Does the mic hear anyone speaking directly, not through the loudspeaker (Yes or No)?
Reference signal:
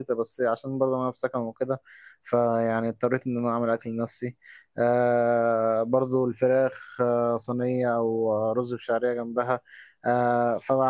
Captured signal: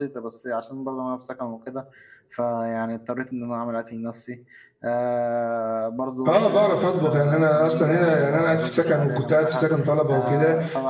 Yes